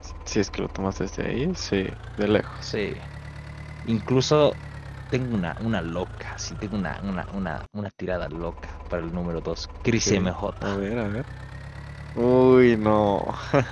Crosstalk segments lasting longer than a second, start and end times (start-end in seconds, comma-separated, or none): none